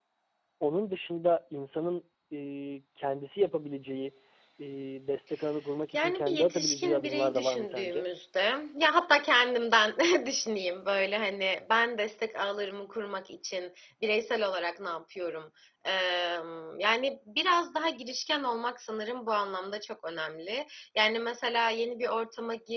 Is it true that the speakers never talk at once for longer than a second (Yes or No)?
No